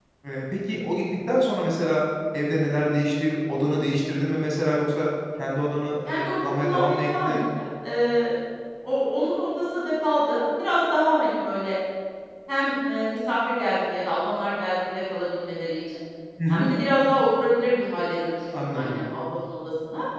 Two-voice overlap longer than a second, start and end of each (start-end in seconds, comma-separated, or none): 6.0-7.4